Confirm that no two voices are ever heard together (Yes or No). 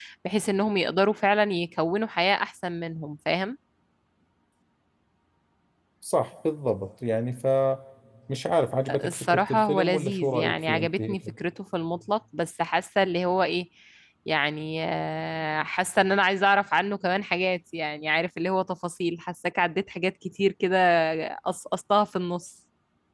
No